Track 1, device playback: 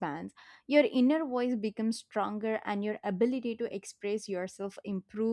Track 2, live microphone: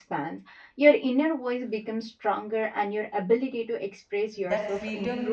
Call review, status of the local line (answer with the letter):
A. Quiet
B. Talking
B